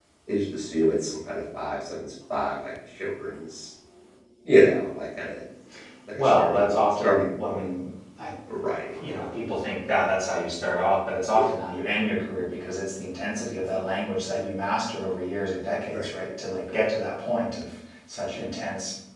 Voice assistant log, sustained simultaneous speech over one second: present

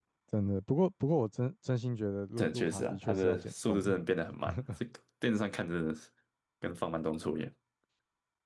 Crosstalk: present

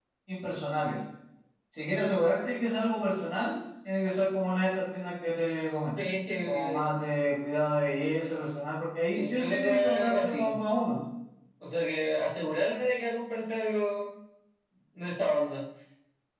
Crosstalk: present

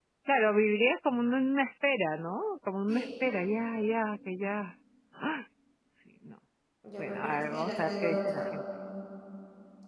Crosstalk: present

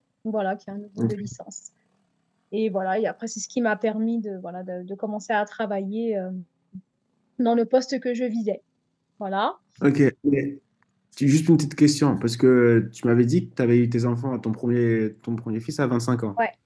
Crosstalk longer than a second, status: none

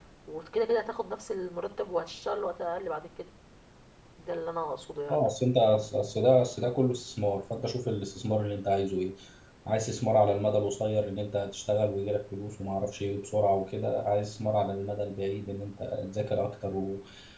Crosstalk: none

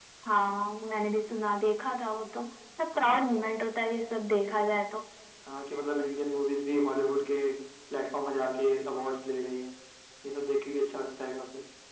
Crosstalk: none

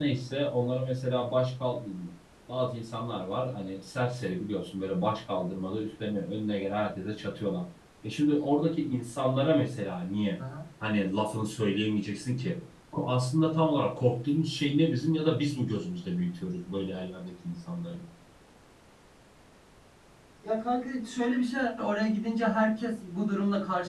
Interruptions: none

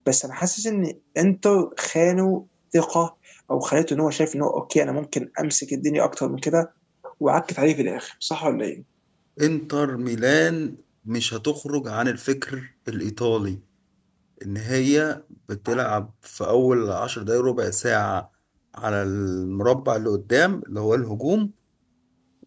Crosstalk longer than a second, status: none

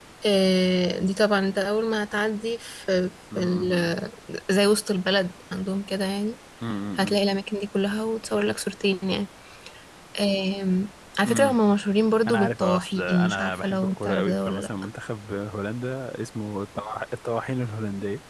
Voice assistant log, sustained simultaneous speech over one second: present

